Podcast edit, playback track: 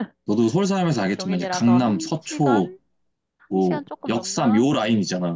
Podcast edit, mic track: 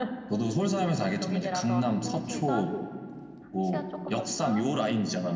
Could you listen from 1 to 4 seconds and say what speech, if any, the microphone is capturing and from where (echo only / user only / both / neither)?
both